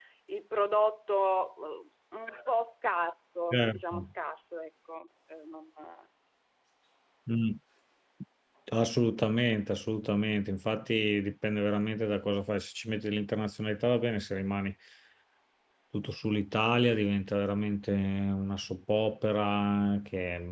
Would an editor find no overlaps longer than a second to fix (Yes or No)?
Yes